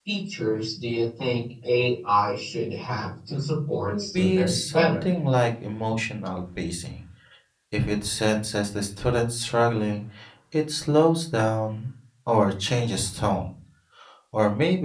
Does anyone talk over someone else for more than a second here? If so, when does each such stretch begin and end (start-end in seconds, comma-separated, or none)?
3.8-5.0